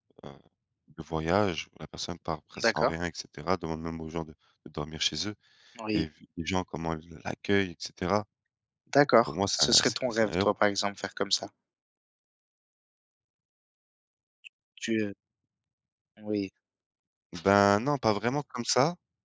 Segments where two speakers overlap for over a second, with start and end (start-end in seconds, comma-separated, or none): 9.2-10.5